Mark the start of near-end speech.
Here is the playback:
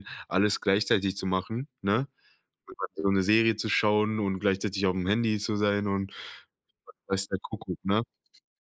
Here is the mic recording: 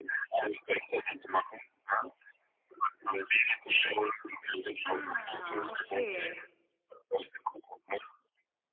5 s

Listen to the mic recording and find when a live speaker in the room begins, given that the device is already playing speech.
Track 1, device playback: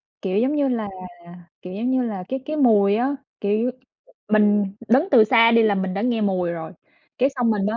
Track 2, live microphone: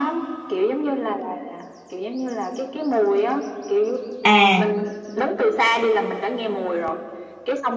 4 s

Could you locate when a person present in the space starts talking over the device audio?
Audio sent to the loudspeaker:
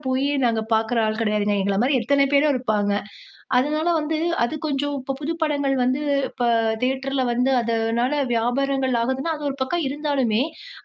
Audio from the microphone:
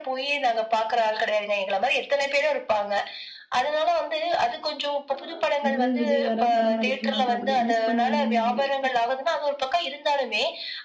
5 s

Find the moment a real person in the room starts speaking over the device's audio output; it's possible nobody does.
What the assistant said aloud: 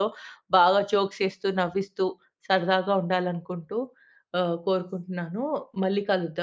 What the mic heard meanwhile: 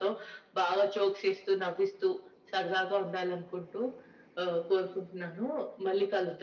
none

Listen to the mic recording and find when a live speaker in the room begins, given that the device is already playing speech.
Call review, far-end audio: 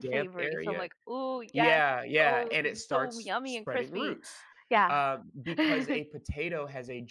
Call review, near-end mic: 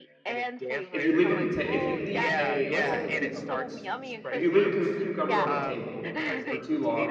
1 s

